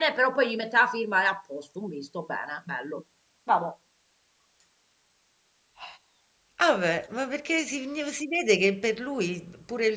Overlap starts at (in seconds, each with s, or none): none